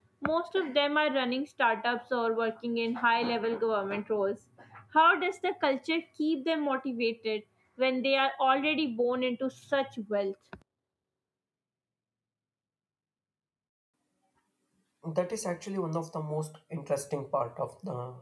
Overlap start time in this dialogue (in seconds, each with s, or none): none